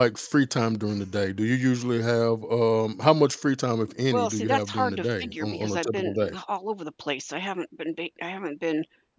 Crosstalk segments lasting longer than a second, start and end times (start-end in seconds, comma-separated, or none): 4.1-6.3